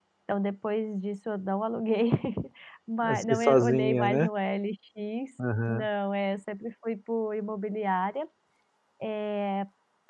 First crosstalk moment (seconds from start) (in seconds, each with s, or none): 3.0 s